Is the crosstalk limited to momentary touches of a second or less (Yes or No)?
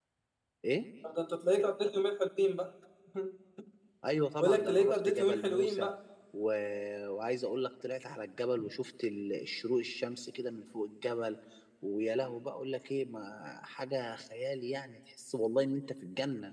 No